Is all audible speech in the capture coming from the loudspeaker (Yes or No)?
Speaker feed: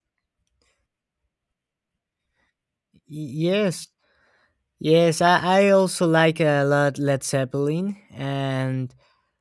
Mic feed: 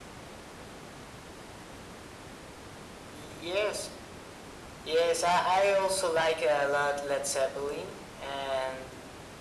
Yes